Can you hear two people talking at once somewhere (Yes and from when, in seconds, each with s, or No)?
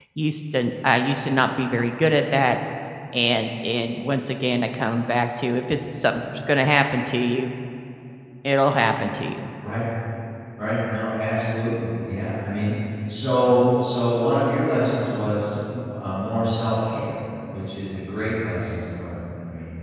No